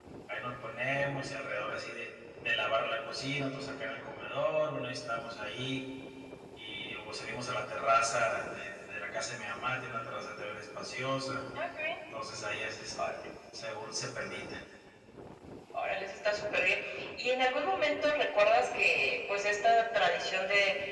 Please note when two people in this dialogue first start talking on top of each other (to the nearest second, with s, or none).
none